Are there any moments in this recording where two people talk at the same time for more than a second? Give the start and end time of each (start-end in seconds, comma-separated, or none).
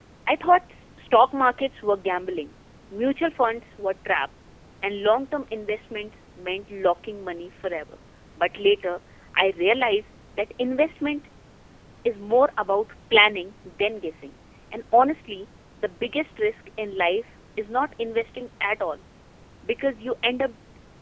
none